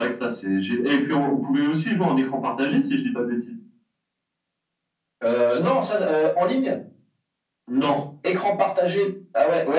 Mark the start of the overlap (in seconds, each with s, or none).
none